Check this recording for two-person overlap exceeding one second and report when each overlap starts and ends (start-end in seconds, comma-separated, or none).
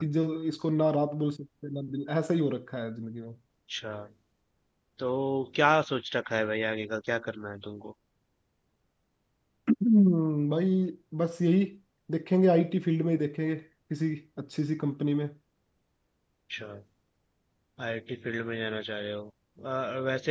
none